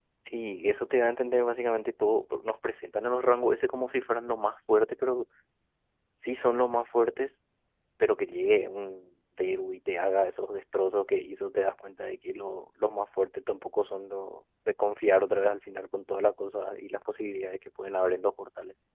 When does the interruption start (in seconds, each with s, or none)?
none